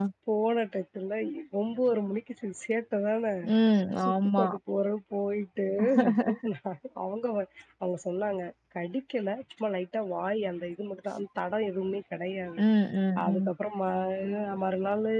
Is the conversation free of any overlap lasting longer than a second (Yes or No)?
Yes